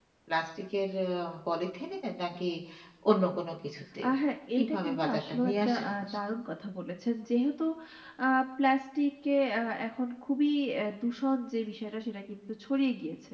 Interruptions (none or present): present